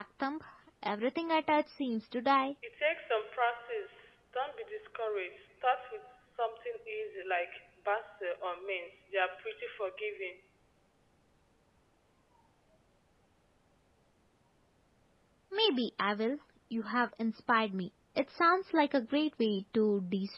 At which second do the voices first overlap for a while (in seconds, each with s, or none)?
none